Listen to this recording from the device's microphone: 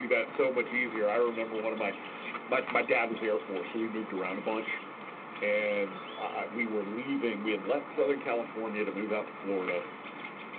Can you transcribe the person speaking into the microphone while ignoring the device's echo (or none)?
none